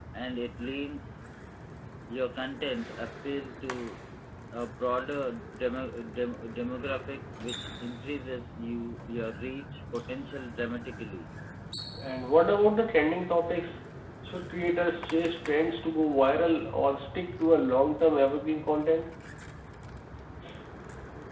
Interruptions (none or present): none